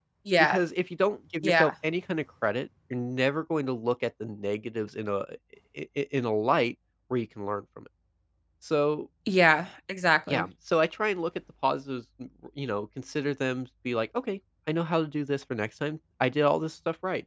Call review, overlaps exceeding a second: none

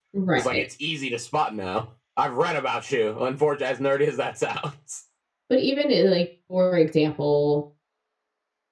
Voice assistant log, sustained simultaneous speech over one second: none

